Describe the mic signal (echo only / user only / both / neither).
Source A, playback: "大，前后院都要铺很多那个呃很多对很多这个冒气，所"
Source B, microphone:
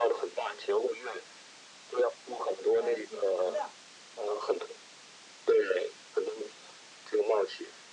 both